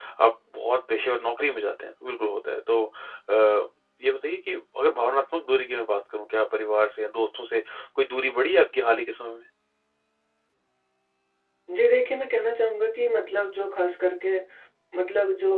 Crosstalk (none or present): none